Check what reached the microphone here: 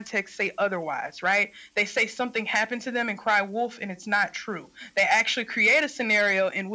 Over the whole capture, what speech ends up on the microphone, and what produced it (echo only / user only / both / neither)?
echo only